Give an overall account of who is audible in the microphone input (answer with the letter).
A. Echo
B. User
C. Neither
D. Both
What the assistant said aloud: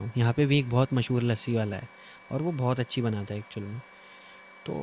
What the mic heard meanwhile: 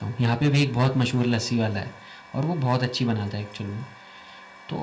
A